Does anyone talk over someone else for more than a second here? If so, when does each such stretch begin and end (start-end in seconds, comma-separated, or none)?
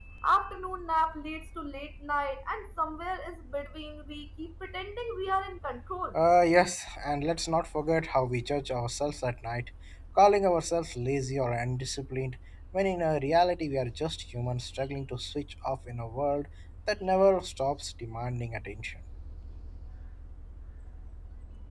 none